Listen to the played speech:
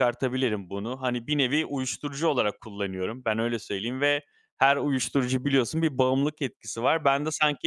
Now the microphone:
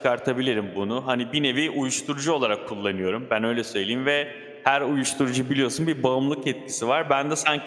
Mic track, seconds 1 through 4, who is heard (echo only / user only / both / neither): echo only